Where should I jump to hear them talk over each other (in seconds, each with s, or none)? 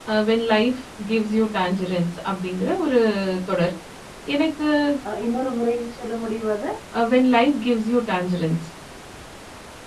none